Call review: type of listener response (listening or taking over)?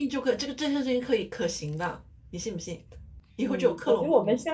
taking over